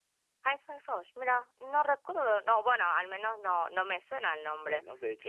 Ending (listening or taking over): taking over